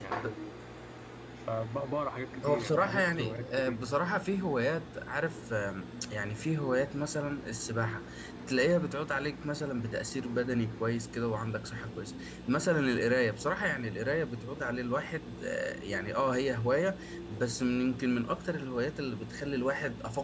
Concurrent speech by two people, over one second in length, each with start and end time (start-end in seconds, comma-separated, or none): 2.5-3.8